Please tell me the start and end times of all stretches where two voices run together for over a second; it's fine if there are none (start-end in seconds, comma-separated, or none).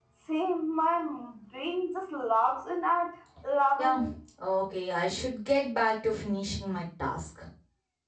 none